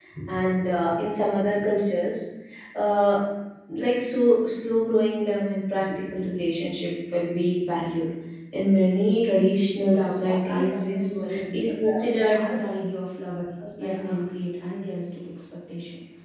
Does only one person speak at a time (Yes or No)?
No